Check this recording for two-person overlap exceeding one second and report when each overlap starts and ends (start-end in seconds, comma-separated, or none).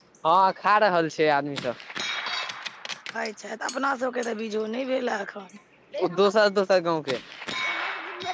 none